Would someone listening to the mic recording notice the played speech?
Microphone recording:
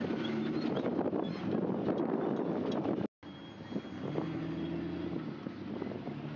No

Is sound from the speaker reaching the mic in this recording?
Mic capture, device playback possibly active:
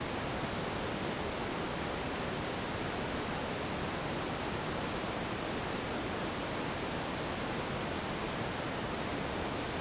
No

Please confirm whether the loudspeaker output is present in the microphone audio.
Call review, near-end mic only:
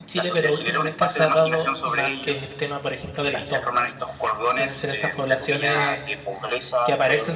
Yes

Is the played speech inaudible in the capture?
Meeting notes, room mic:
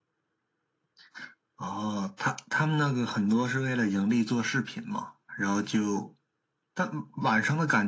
No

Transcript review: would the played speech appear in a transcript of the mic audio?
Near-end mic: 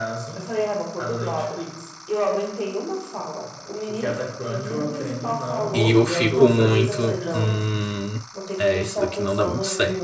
Yes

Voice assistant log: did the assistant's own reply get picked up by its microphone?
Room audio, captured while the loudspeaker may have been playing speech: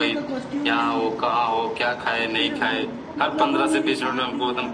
Yes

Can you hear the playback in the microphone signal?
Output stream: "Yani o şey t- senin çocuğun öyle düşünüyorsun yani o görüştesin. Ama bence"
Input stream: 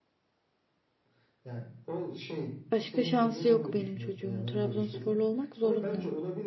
Yes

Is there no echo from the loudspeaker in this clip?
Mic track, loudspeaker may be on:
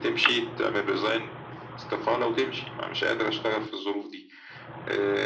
No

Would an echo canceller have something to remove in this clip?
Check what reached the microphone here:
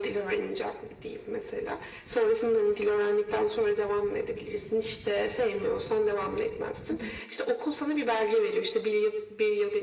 Yes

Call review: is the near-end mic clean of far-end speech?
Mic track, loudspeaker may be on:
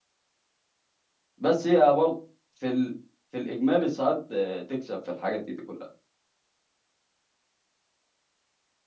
Yes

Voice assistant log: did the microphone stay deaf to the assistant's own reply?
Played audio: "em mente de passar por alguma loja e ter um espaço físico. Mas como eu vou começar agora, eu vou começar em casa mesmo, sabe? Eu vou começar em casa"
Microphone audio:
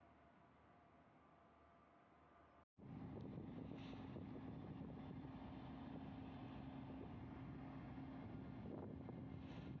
Yes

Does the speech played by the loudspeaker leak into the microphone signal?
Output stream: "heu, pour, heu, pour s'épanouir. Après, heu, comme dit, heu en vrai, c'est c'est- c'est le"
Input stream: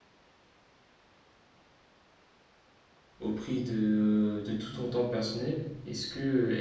No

